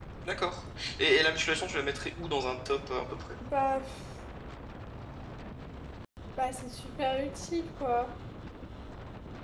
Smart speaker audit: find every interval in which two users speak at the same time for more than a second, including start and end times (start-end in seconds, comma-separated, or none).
none